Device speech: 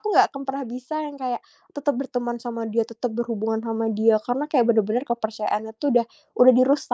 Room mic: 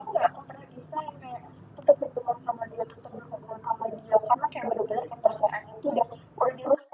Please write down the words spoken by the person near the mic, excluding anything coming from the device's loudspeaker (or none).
none